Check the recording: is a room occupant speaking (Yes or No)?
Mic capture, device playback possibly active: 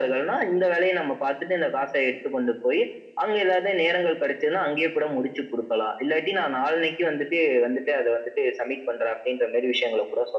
No